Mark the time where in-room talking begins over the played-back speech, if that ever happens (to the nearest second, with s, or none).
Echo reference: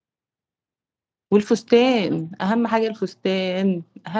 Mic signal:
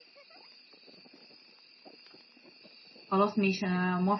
3 s